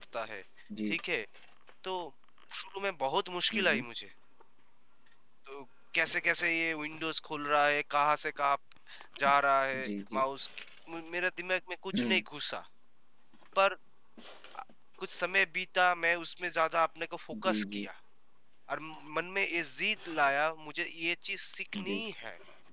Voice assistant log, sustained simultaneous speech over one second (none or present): none